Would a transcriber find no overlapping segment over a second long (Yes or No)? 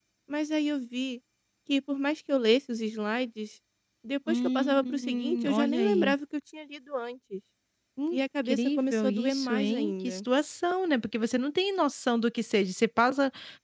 No